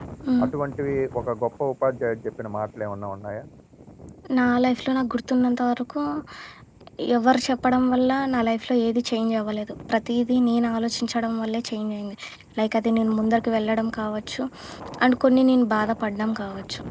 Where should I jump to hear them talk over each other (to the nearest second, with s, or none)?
none